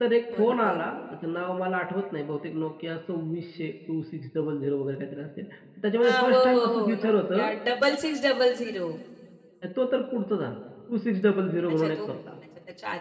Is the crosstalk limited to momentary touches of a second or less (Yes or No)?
No